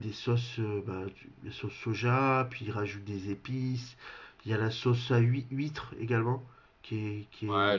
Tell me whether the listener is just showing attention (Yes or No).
No